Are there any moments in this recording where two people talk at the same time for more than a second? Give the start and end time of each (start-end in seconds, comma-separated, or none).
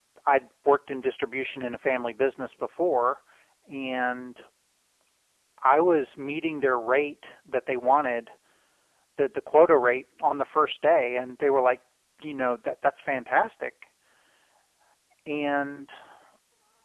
none